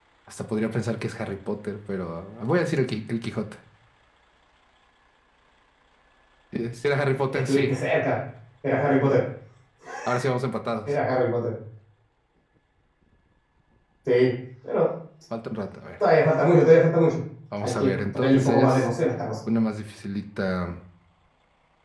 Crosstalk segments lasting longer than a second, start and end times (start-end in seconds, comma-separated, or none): 17.6-18.9